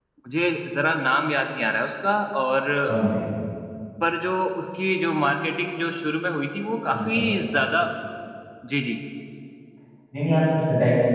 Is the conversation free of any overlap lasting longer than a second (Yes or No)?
Yes